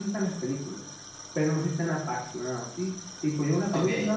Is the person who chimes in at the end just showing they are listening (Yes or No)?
Yes